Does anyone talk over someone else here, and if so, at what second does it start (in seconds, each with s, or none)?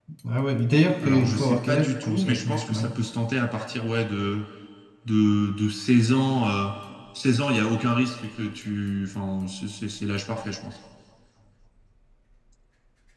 1.0 s